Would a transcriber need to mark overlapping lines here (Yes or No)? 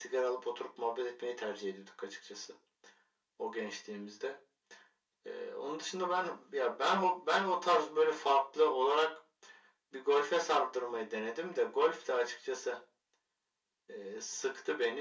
No